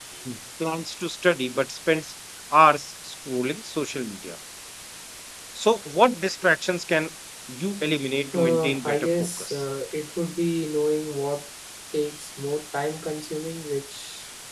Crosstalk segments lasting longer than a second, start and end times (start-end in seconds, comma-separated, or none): 8.3-9.6